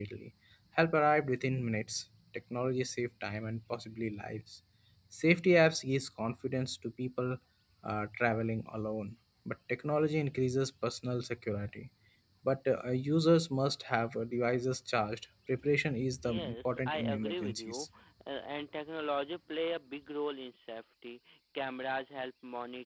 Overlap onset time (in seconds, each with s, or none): 16.0 s